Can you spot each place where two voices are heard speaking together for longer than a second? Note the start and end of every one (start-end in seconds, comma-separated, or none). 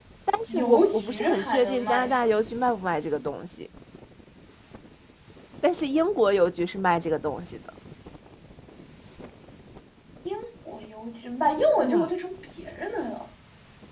0.5-2.1